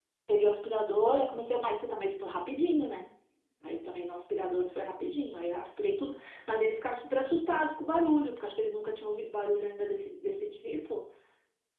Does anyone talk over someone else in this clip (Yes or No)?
No